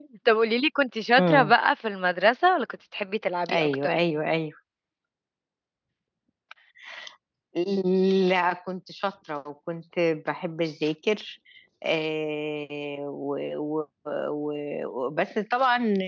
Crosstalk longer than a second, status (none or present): none